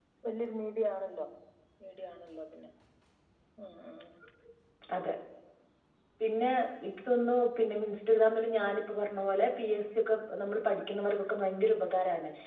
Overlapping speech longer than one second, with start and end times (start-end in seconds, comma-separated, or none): none